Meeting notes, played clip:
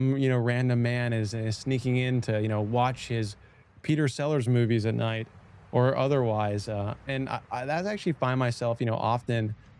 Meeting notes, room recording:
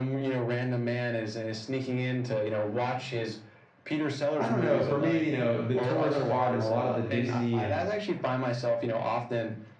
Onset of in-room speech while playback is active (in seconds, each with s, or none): 4.4 s